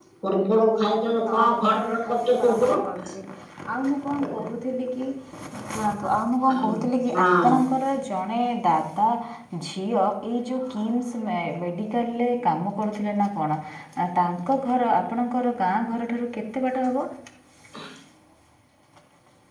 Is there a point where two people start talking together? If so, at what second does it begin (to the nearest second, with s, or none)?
1 s